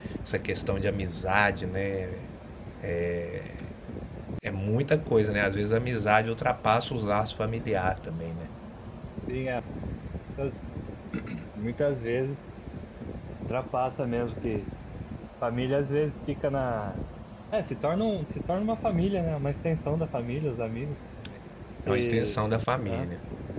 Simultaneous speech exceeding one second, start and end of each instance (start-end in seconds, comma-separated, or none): none